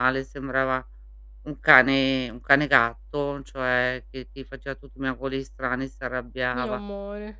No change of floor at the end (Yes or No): Yes